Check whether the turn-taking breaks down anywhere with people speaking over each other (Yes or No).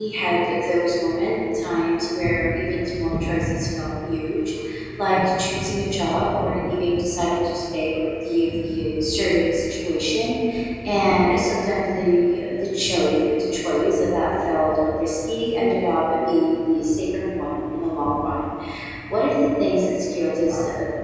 No